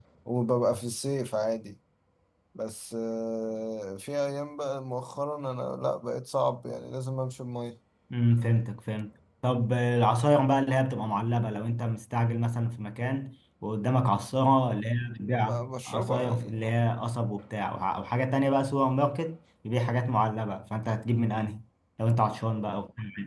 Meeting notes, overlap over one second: present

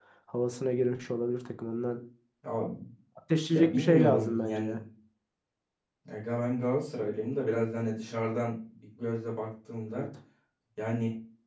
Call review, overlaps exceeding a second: present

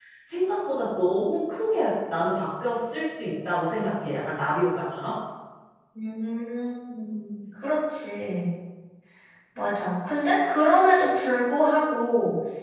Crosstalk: none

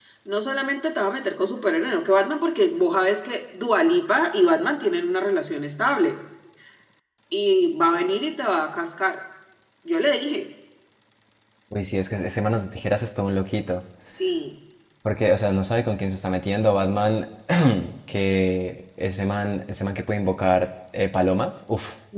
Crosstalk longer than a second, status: none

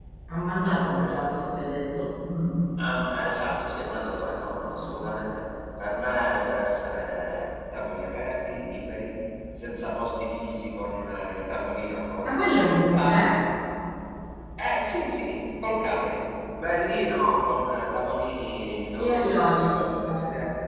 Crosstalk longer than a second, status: present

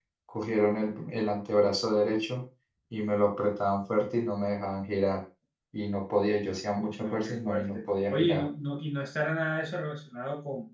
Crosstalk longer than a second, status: present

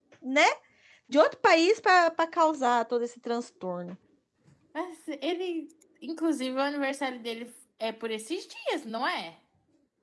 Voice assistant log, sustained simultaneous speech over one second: none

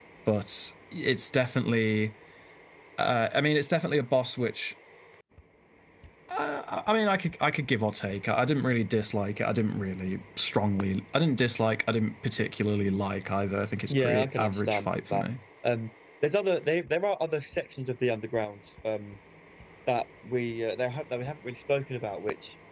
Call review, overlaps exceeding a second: present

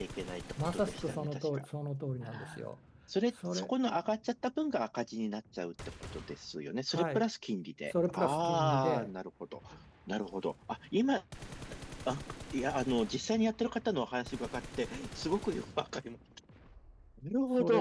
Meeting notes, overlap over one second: present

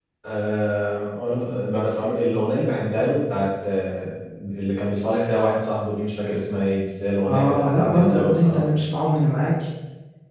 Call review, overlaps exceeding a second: present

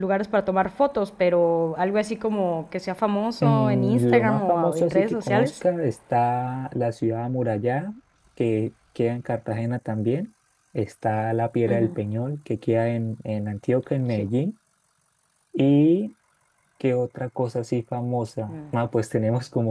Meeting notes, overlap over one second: present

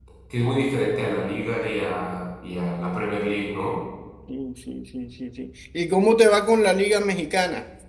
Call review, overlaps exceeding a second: none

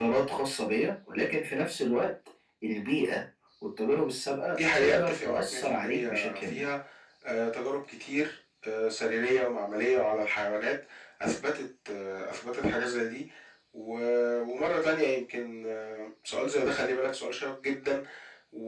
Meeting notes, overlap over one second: present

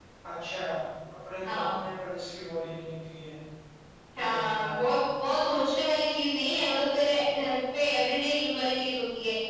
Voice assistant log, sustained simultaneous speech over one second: none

